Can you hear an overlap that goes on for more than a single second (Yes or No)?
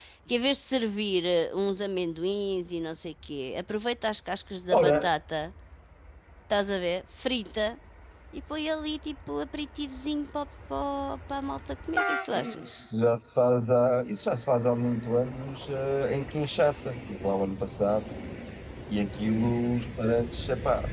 No